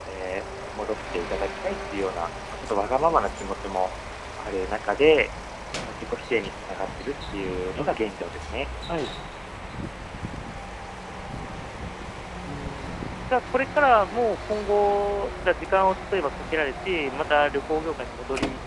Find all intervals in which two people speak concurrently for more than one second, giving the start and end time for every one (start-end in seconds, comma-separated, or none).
none